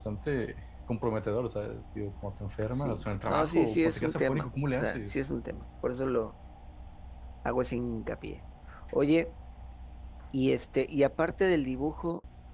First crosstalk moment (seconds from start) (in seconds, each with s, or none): 2.7 s